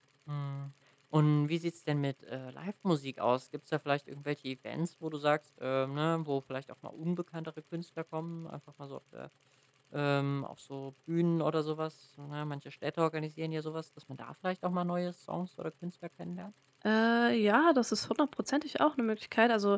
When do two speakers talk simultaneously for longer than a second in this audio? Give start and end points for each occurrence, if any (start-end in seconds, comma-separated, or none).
none